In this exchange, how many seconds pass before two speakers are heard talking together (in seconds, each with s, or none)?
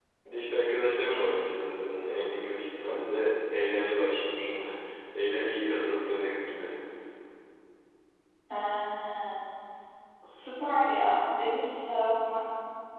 none